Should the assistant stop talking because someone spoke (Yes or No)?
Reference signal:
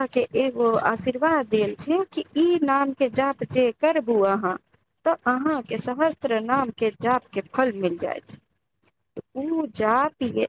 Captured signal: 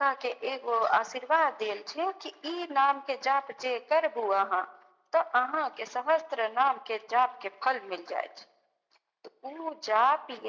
No